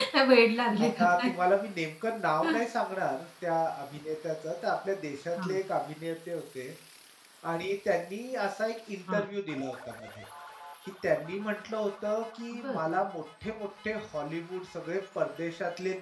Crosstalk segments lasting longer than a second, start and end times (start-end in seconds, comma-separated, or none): none